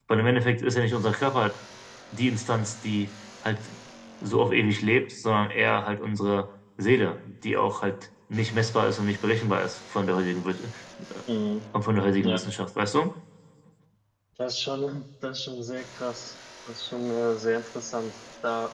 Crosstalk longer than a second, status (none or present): none